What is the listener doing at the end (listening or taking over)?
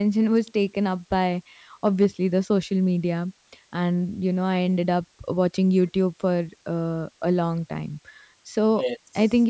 listening